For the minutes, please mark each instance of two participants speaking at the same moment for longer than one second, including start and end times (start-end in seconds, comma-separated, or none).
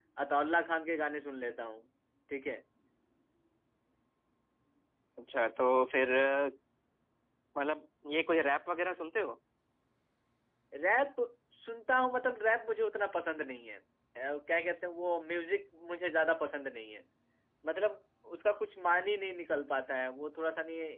none